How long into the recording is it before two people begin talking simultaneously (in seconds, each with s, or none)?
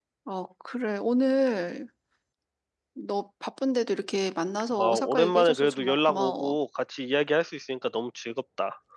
4.7 s